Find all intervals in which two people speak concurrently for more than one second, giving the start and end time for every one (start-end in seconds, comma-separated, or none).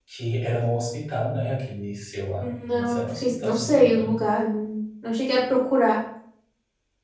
2.4-4.2